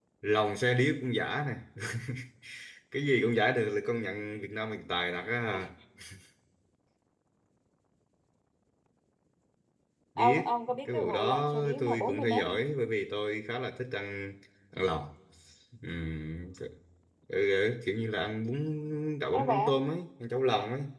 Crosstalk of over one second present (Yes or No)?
Yes